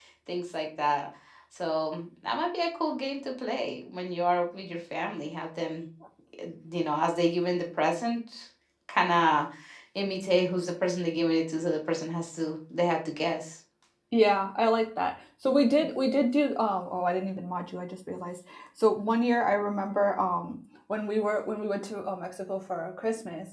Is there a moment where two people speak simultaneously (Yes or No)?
No